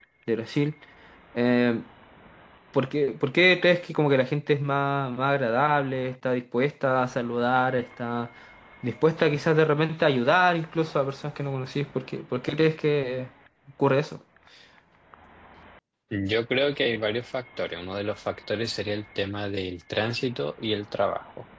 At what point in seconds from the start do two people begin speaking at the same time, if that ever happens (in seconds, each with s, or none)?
none